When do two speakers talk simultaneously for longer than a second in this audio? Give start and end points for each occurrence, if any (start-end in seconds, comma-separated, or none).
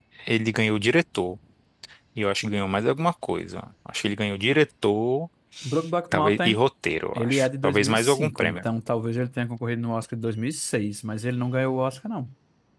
7.1-8.6